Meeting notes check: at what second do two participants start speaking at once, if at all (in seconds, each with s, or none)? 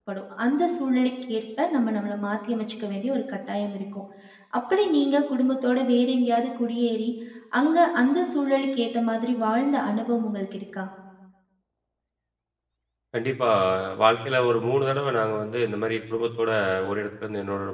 none